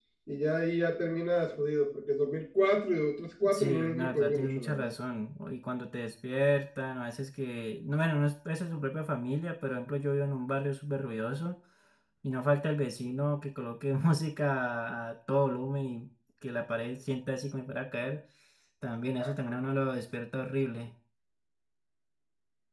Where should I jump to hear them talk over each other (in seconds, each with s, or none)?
3.5 s